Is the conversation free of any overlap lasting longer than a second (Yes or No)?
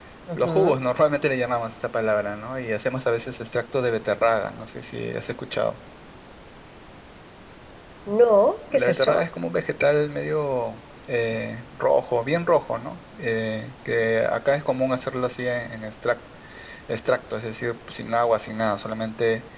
Yes